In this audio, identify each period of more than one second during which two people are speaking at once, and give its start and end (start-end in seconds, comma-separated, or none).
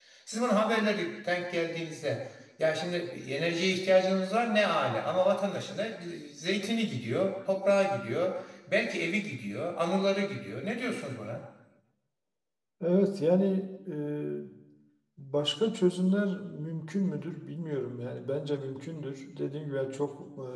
none